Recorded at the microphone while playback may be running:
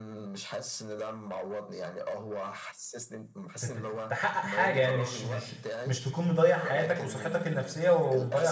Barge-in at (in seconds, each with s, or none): 3.6 s